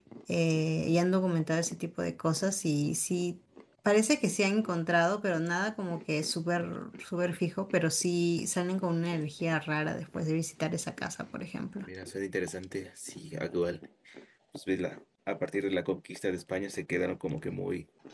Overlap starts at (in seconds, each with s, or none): none